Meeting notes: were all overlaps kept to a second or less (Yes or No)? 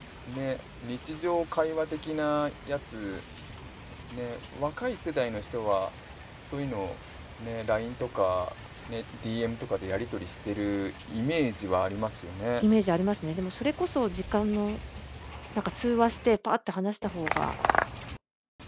Yes